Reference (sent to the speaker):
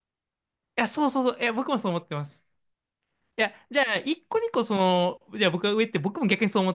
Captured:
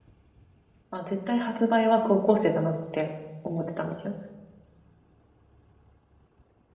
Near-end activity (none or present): present